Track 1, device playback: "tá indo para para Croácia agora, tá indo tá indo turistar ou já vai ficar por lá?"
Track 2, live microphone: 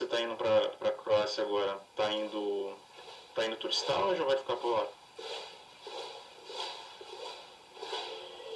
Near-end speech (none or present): none